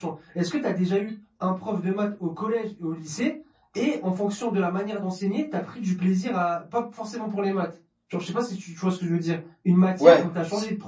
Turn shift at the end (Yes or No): No